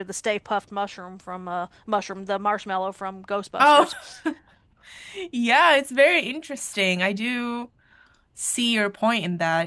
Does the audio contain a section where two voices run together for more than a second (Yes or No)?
No